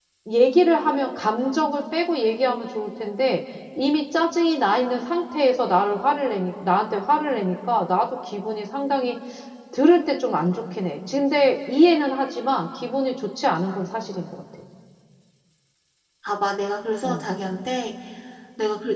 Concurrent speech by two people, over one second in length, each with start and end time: none

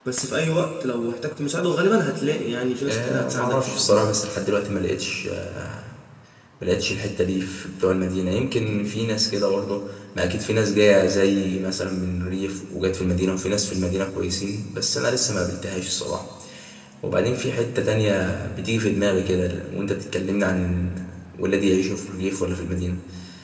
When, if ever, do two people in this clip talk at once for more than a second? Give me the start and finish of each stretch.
2.9-4.1

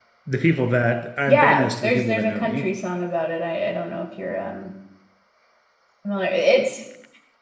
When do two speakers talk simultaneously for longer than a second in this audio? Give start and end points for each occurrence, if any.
1.3-2.7

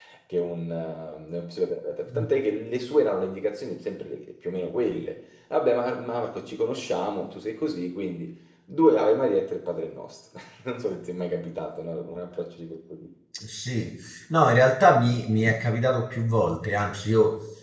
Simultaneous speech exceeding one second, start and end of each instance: none

